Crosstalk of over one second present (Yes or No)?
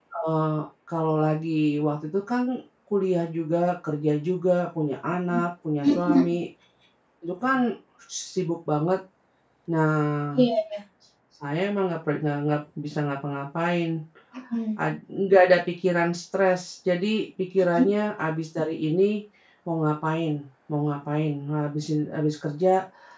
No